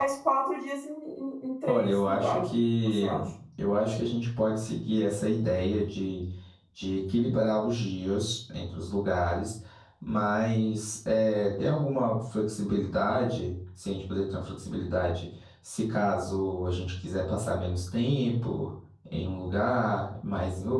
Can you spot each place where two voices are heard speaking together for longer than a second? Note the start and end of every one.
1.7-3.1

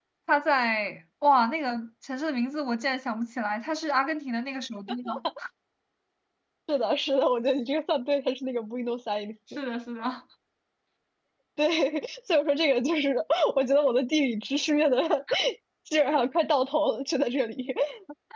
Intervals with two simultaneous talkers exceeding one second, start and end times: none

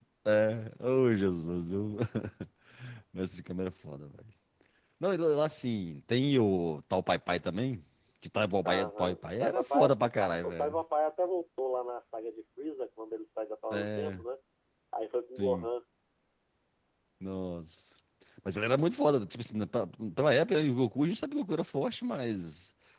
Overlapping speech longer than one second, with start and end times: 8.6-9.9

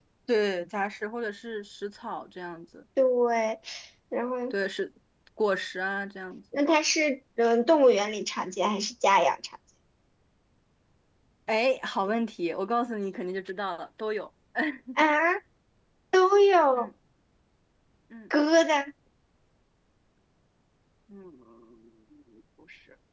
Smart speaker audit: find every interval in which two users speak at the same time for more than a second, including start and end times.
none

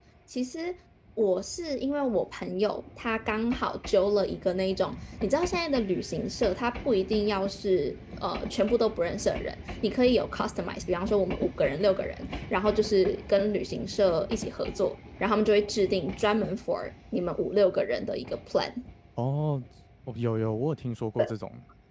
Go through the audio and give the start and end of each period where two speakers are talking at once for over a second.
none

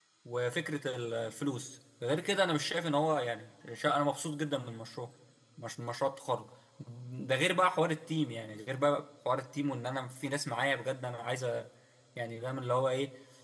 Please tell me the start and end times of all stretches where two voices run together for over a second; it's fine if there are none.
none

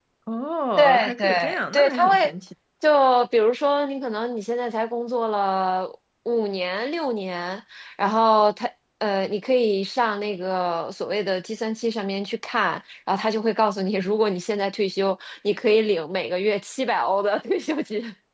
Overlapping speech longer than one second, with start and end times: 0.8-2.3

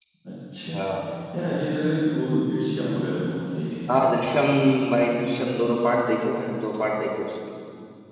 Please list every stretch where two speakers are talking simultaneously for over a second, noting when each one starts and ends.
none

